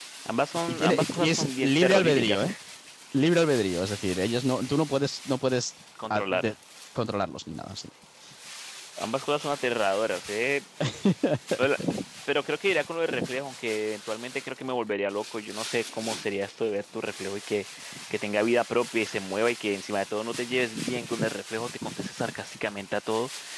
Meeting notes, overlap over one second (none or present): present